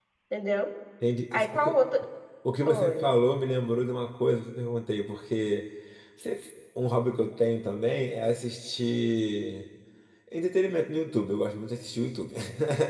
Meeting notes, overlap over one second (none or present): none